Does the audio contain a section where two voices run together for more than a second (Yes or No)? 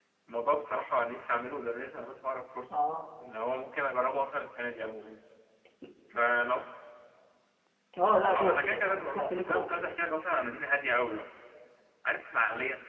Yes